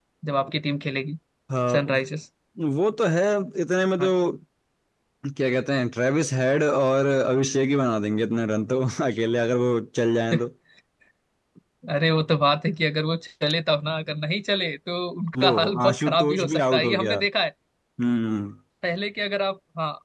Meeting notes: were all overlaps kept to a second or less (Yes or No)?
No